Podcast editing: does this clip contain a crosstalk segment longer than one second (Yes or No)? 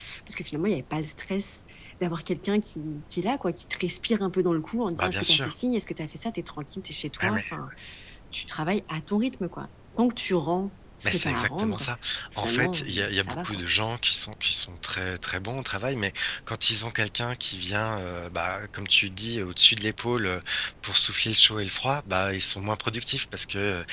Yes